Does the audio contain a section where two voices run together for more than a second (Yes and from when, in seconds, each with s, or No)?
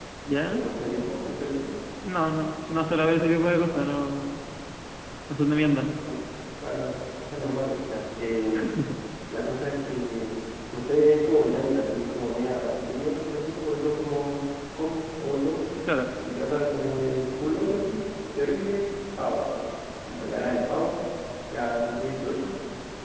No